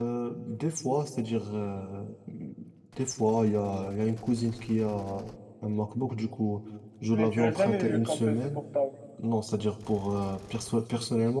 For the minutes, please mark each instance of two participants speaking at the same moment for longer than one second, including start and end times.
7.1-8.4

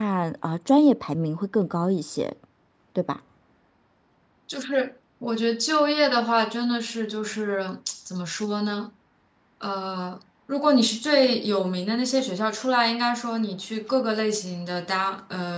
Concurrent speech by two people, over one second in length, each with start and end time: none

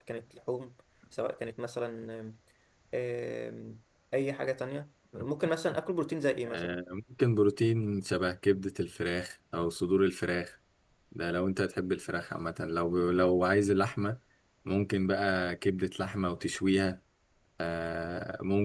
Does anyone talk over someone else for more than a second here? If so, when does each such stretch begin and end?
none

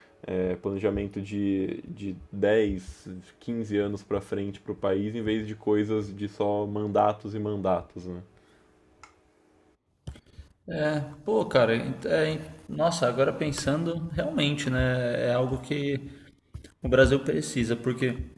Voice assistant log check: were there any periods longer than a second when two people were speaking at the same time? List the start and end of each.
none

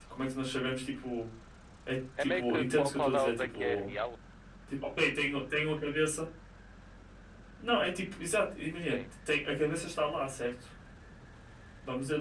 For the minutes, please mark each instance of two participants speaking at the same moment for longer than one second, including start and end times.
2.2-3.9

